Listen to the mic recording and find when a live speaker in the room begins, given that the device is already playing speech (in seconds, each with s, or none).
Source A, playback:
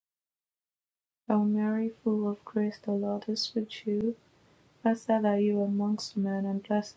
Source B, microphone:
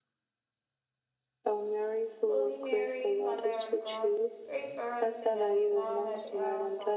2.3 s